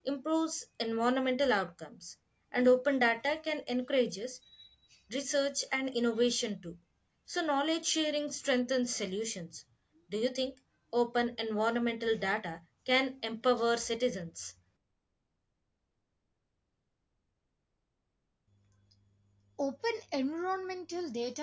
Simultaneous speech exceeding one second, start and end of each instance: none

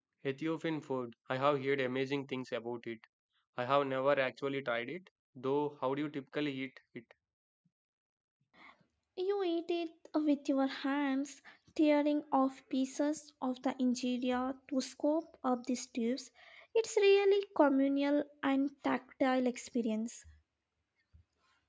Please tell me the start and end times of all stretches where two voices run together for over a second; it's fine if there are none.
none

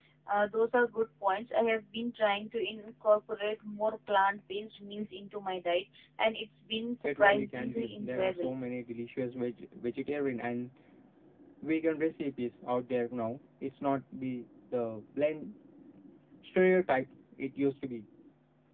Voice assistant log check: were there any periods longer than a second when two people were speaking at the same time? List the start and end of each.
7.0-8.5

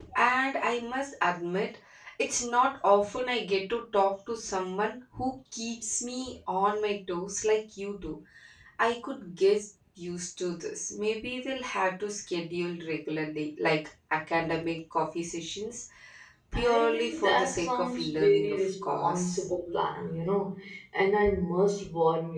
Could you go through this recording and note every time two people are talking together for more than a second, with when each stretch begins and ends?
16.5-19.5

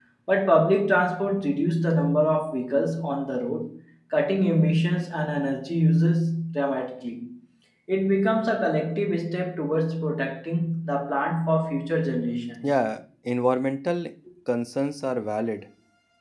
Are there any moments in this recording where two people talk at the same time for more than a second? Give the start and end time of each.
none

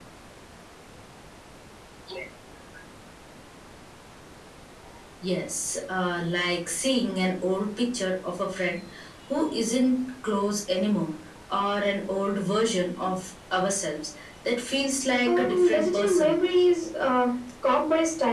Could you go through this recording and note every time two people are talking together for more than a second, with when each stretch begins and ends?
15.3-16.5

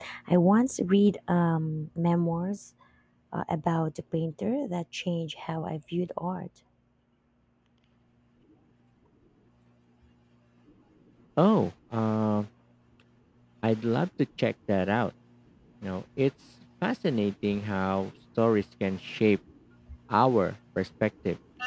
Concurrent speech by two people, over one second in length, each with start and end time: none

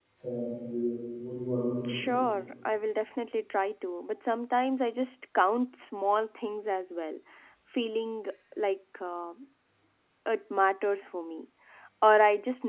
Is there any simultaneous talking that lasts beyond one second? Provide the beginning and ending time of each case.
none

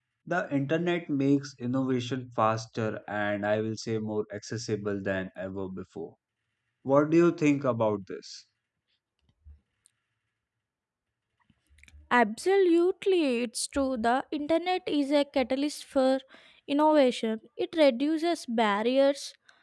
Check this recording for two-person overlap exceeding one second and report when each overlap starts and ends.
none

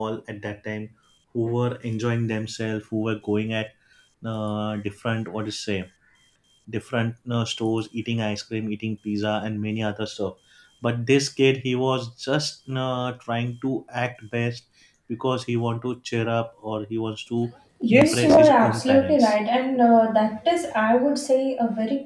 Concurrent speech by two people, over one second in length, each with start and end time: 17.9-19.4

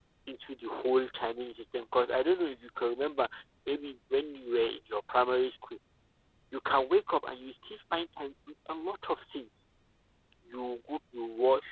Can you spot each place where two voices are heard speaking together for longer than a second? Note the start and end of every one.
none

